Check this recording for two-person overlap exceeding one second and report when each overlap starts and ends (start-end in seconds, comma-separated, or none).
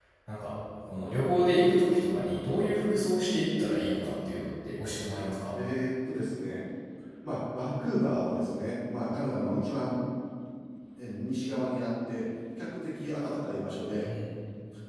none